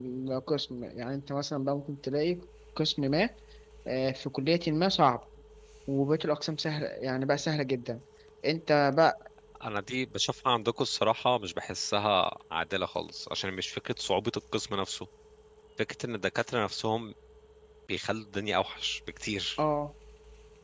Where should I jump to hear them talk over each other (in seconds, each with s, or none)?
none